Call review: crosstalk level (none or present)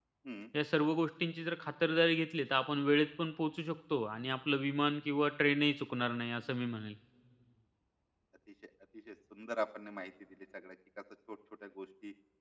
none